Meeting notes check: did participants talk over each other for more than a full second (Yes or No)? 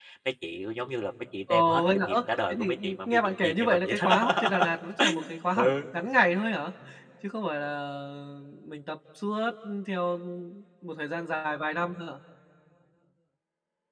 Yes